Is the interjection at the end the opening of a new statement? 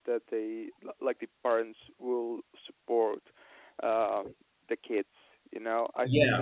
Yes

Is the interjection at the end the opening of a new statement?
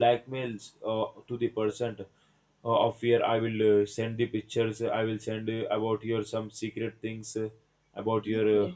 No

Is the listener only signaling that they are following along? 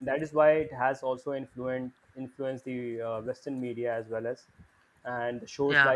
Yes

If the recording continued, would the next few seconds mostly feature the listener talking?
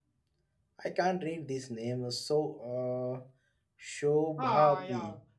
Yes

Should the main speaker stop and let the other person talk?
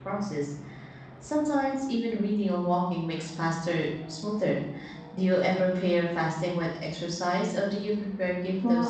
Yes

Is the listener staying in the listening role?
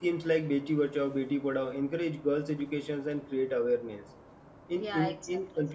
Yes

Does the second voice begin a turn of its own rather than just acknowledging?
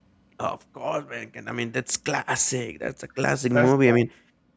No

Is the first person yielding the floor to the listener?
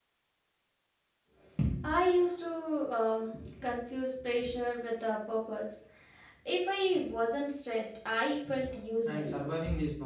Yes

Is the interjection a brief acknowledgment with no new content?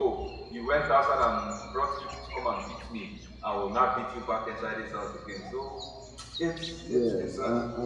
No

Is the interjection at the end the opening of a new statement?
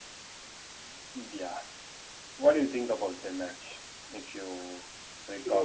Yes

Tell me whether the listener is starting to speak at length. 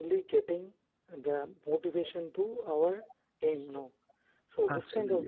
Yes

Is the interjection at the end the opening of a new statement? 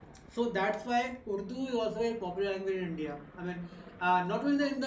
No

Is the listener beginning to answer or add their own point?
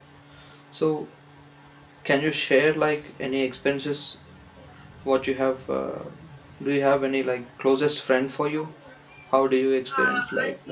Yes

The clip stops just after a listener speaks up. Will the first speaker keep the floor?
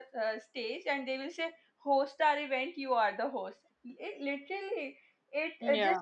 Yes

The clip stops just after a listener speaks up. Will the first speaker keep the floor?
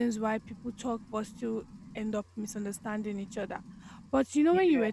Yes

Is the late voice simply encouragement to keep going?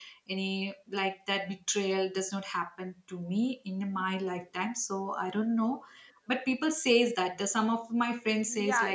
No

